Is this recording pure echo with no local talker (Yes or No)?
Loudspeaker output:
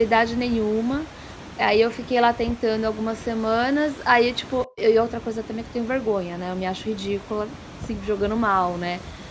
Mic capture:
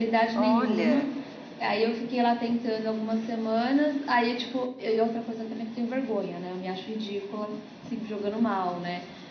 No